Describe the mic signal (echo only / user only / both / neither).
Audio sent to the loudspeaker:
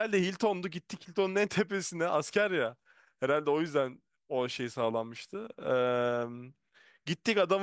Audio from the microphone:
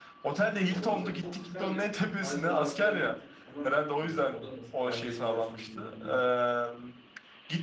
both